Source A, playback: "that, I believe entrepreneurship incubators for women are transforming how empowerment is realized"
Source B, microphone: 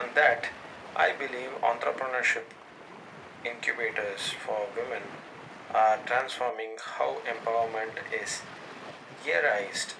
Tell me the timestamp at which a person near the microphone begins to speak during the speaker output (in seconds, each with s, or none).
none